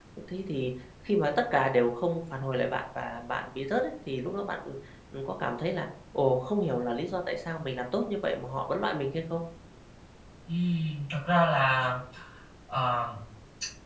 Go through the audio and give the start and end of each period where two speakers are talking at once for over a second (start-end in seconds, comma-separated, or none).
none